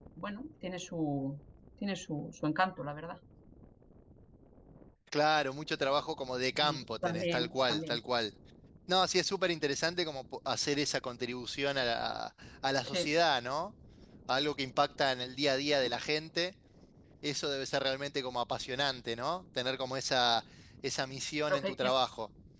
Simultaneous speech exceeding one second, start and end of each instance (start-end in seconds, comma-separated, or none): 6.6-8.0